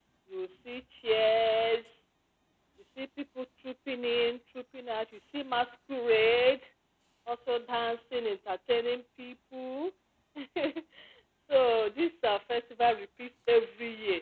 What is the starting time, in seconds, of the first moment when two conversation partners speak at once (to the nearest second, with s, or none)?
none